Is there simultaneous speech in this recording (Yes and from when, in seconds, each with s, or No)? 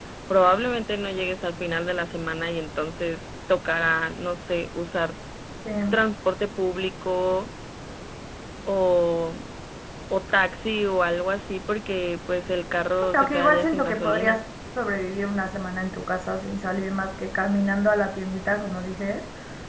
Yes, from 13.1 s